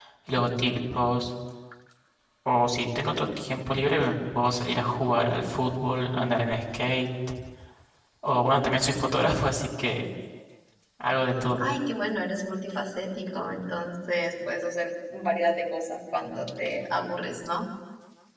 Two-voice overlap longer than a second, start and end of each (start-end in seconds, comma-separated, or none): none